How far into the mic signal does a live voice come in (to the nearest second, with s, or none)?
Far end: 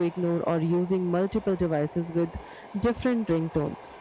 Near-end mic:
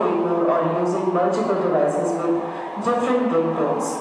none